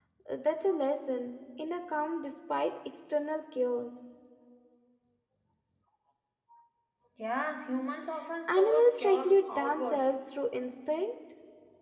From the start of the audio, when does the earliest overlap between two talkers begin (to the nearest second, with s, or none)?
8 s